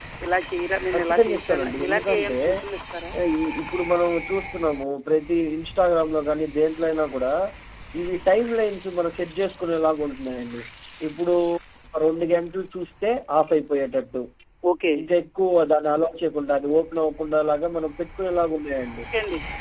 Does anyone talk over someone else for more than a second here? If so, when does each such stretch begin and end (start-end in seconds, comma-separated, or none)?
0.9-2.4